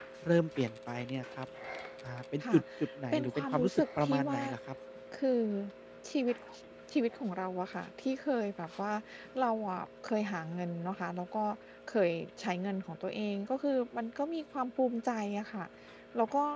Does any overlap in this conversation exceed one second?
Yes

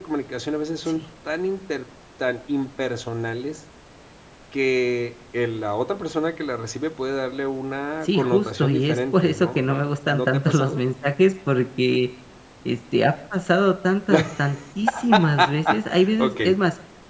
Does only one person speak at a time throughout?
No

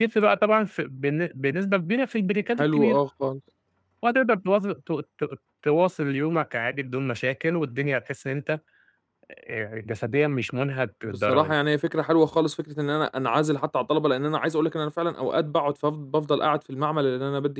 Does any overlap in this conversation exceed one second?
No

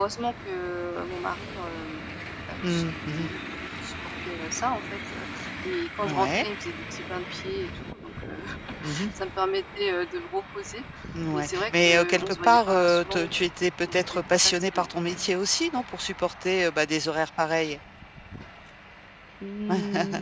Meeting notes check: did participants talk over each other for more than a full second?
Yes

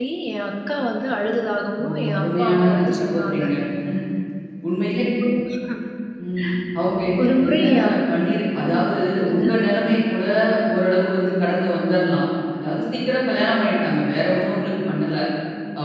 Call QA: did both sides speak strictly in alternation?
No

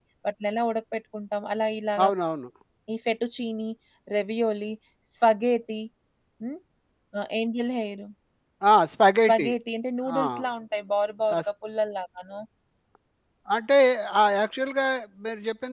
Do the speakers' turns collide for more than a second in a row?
No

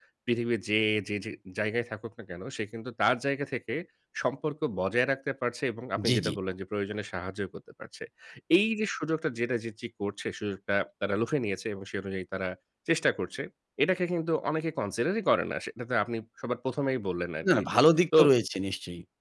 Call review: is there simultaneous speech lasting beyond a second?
No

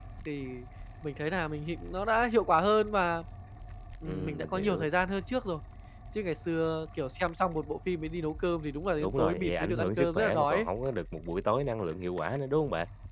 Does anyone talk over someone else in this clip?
Yes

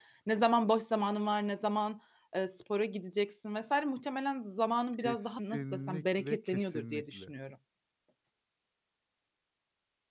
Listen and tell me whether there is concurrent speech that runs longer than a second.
Yes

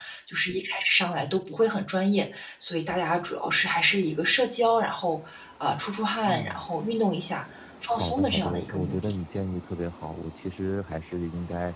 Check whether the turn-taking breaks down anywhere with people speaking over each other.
Yes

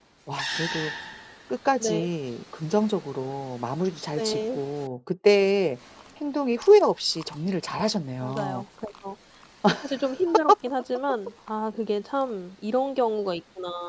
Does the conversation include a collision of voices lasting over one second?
No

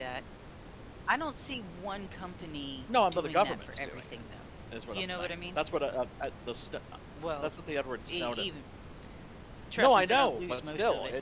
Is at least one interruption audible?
Yes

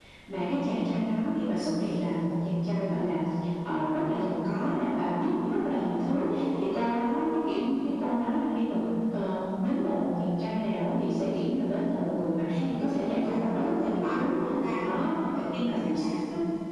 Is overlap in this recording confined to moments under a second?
No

